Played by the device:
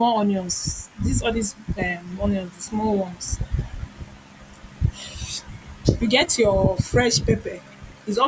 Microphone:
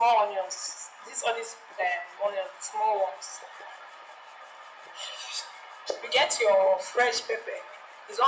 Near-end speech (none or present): none